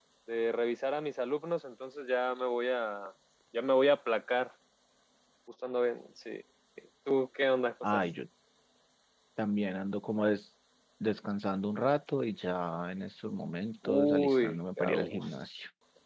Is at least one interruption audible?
Yes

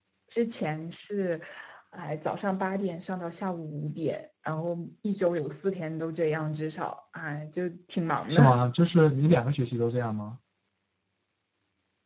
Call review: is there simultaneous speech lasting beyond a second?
No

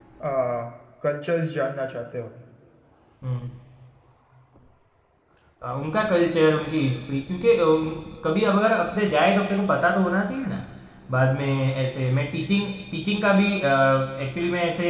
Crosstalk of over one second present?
No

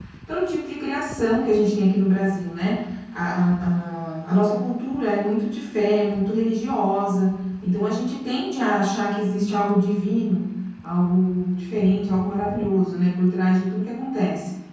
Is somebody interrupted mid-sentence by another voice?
No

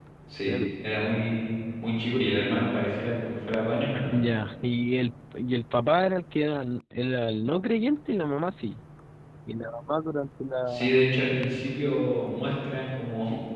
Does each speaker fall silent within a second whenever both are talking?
Yes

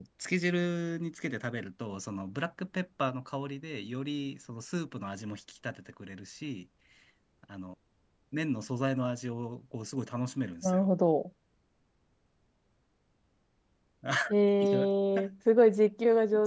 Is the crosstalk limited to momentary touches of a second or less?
Yes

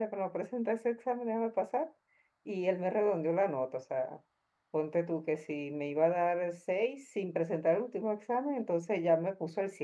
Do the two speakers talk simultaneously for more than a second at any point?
No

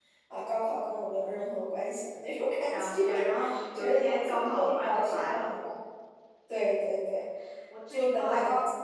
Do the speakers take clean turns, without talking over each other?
No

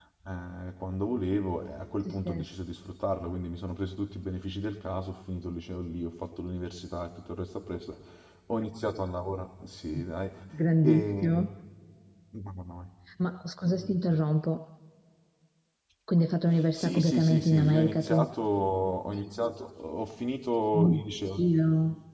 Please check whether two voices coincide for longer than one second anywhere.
Yes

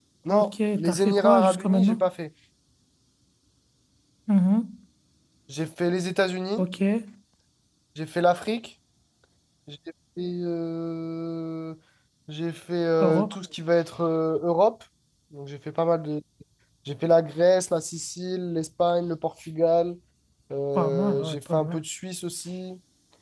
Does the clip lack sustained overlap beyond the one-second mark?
No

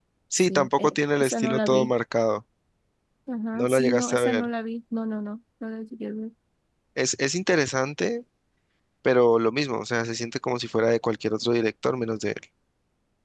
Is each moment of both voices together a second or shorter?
No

